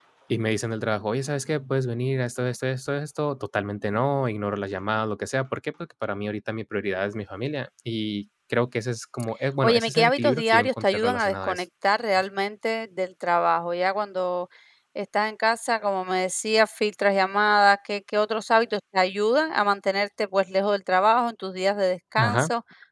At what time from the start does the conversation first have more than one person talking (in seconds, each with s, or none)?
9.6 s